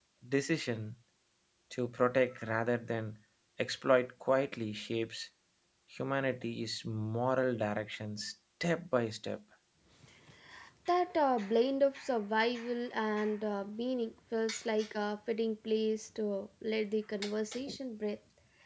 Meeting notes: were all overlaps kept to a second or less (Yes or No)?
Yes